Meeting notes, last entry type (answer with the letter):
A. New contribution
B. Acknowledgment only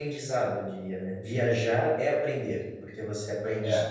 B